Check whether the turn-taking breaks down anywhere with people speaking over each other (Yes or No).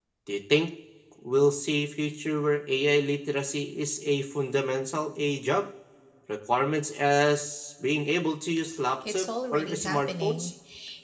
Yes